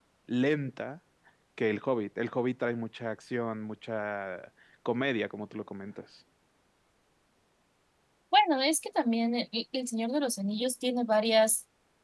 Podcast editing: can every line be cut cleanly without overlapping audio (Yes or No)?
Yes